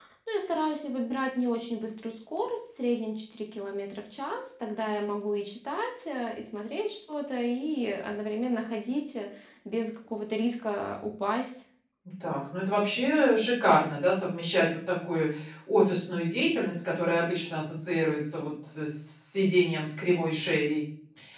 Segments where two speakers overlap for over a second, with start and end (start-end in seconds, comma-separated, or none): none